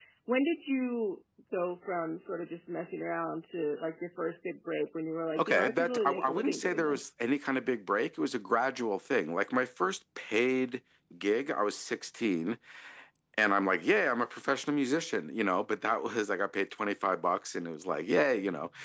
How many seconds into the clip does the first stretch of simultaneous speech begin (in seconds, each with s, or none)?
5.4 s